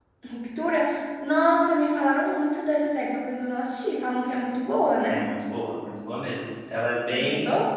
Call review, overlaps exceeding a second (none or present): none